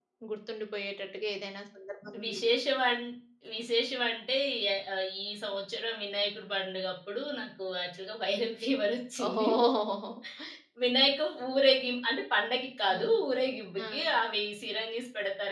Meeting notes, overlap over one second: none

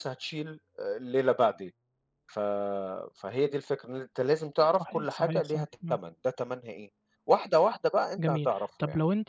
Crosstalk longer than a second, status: present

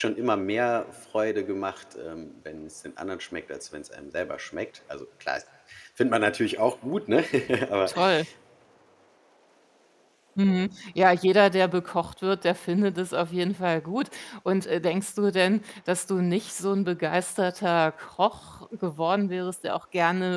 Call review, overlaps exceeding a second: none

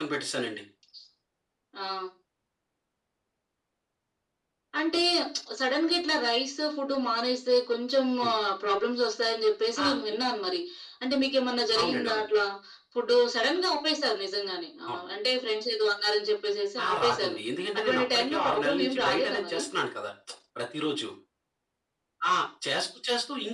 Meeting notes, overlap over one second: present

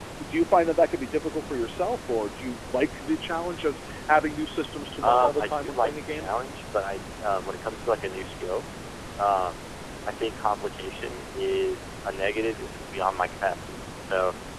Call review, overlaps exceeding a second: present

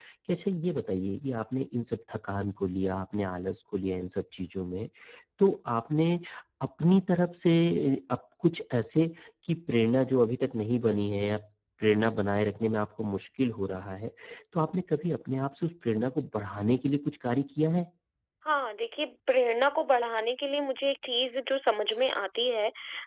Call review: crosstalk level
none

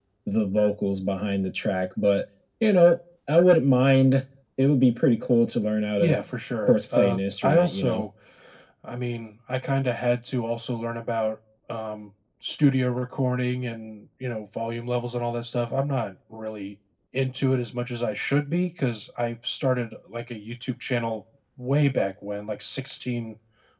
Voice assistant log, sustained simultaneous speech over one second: present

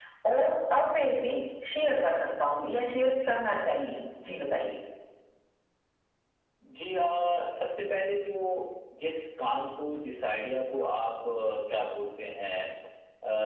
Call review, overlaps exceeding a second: none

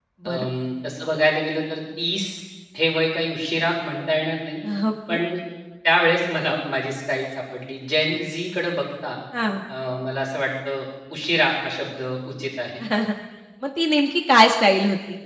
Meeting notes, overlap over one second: none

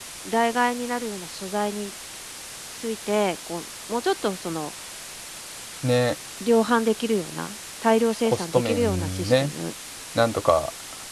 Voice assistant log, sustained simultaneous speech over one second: present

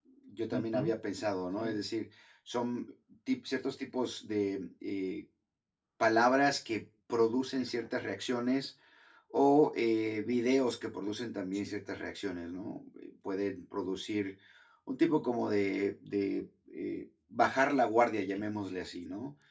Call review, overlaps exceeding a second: none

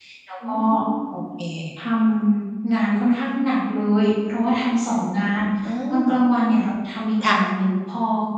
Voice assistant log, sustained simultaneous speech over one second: none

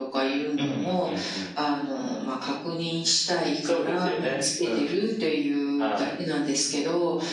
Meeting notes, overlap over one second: present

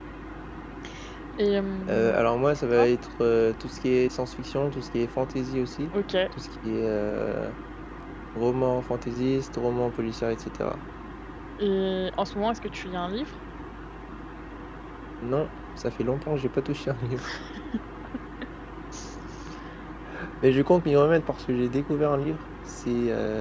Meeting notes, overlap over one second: none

